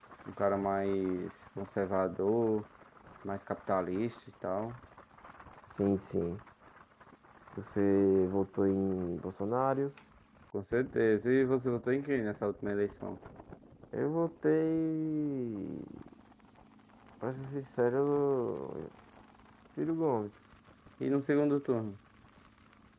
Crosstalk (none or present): none